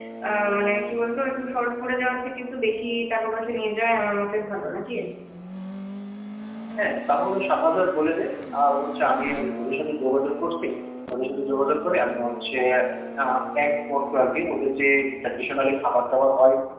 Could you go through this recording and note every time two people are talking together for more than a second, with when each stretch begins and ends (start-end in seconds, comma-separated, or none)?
none